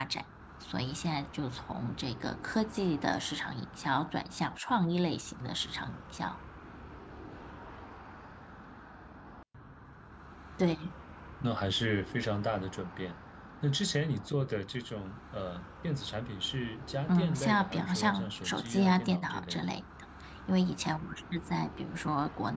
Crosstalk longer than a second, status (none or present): present